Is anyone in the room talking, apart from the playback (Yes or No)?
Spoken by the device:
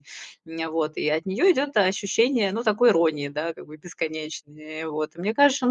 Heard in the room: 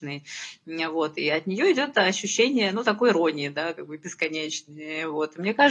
No